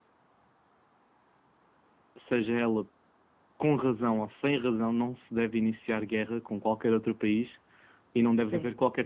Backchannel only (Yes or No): Yes